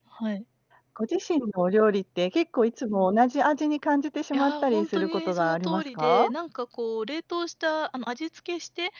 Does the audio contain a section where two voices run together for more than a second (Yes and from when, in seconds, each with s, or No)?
Yes, from 4.3 s